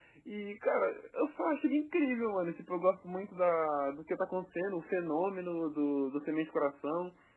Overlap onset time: none

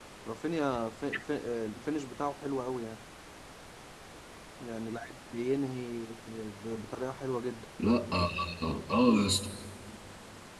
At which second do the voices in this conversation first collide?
none

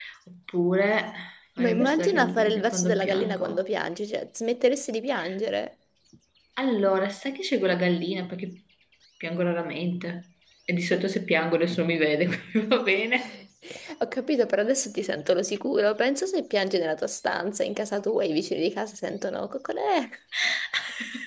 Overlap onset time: 1.6 s

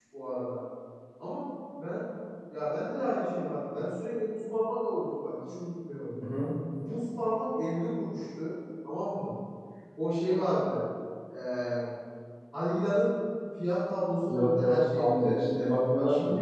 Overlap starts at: 14.3 s

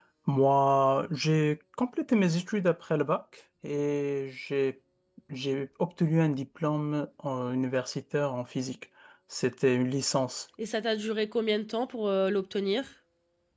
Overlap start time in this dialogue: none

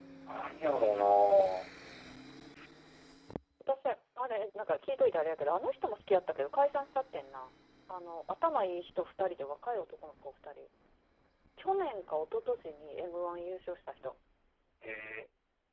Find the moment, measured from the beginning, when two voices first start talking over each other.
none

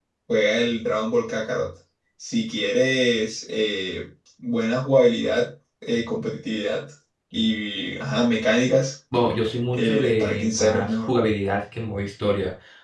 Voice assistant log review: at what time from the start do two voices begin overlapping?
9.7 s

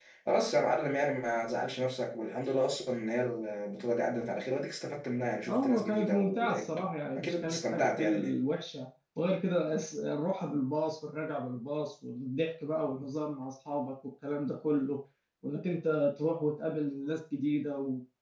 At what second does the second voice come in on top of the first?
5.5 s

